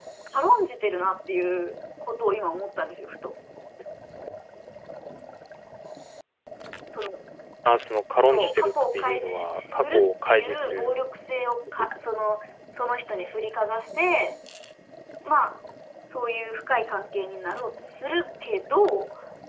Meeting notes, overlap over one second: present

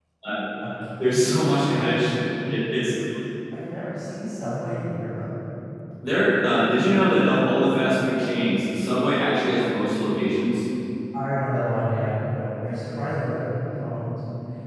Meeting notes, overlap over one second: none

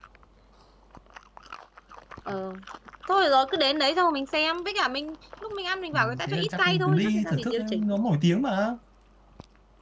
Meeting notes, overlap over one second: present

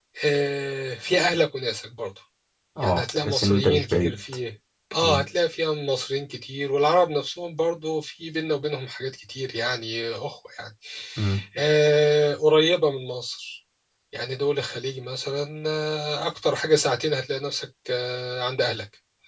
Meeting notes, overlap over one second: present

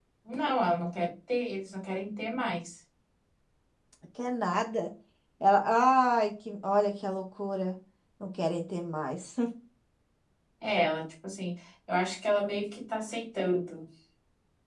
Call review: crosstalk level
none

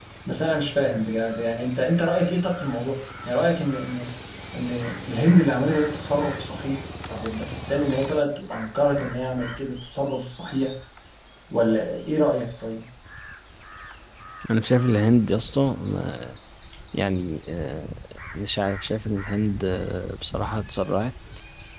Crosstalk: none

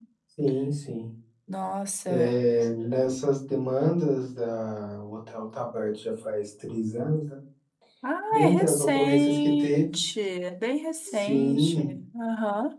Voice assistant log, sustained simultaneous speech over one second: present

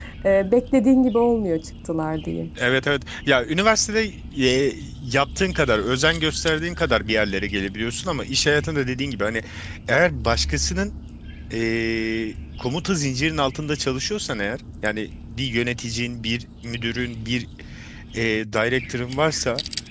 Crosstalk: none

